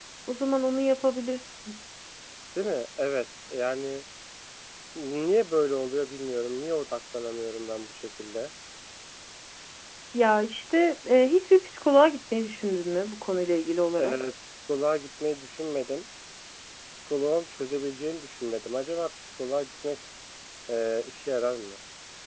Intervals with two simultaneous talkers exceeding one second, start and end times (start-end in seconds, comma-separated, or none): none